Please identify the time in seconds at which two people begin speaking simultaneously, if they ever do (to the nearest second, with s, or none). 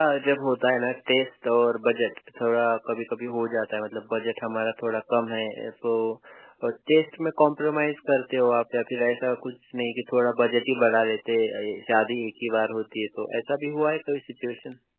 none